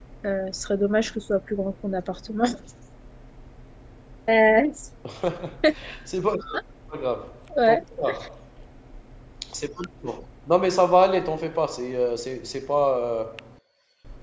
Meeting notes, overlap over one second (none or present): none